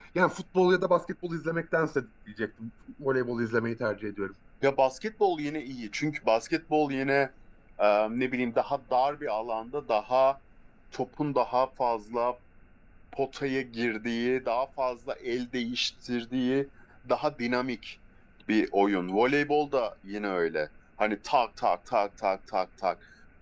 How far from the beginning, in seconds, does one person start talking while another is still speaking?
none

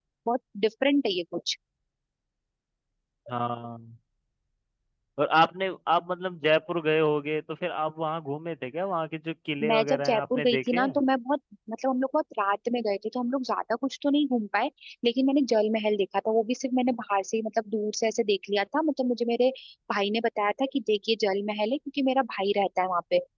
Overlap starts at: 9.6 s

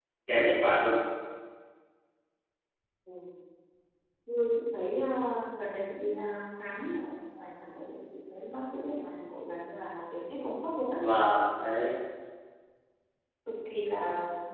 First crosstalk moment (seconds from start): none

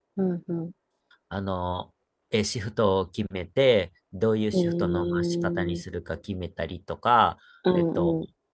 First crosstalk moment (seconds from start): 4.5 s

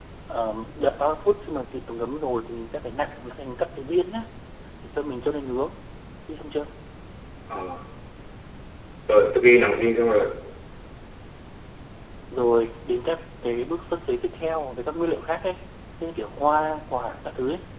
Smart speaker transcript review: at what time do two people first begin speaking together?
none

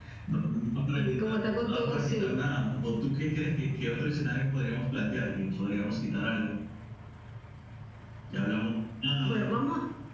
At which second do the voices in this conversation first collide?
1.0 s

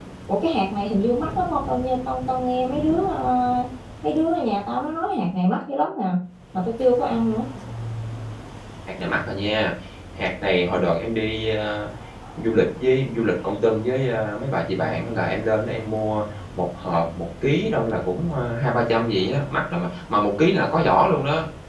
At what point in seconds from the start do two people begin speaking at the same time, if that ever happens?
none

